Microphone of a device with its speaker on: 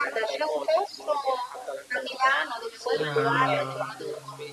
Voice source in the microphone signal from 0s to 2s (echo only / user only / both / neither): echo only